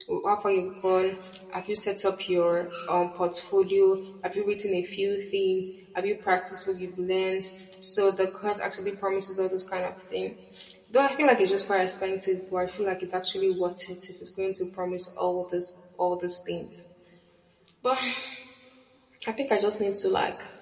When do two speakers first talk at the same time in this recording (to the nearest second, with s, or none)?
none